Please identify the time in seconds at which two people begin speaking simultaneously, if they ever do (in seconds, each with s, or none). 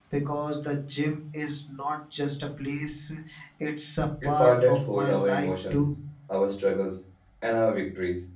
4.2 s